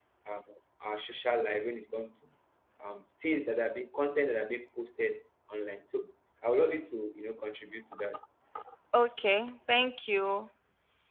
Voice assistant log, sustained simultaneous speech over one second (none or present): none